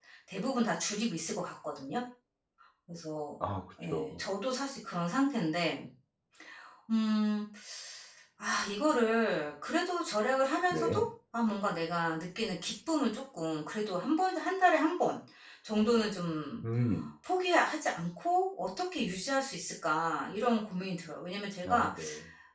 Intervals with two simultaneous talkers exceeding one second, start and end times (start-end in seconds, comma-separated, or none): none